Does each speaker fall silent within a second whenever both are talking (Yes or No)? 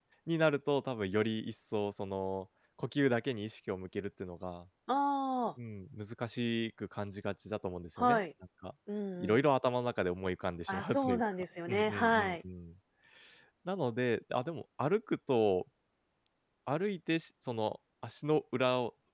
No